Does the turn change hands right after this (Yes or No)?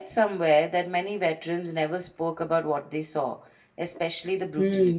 Yes